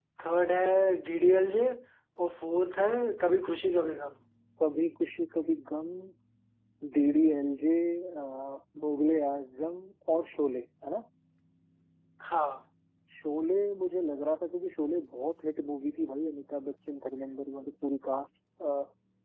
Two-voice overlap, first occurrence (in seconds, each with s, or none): none